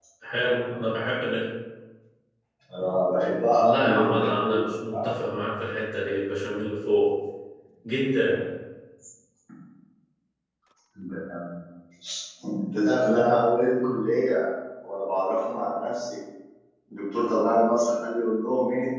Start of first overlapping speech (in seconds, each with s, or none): 3.6 s